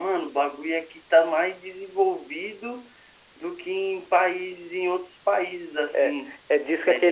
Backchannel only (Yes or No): No